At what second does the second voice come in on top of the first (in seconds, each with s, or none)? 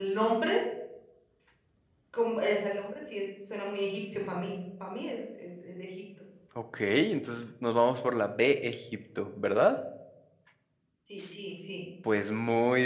none